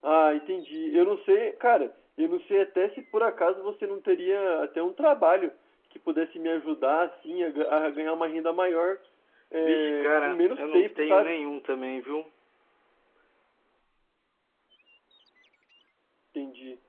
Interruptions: present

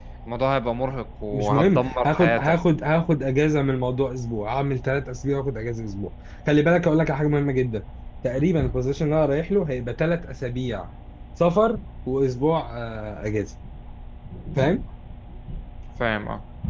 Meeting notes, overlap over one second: present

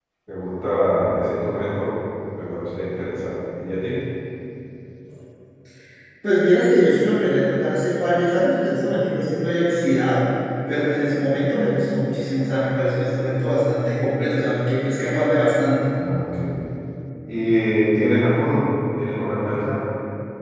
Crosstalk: none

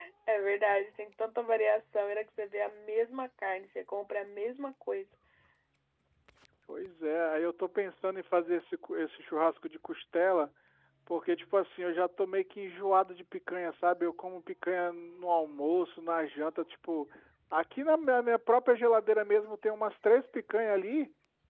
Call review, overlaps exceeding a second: none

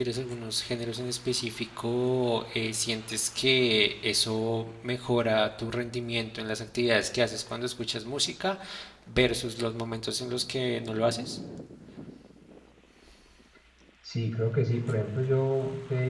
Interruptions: none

